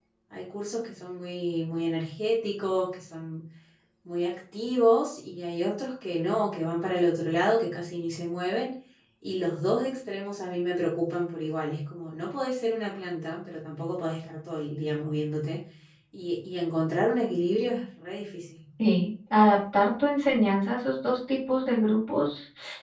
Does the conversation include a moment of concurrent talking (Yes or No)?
No